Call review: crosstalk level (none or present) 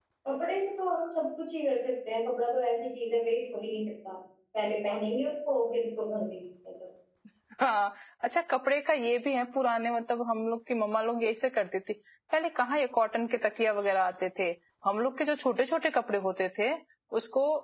none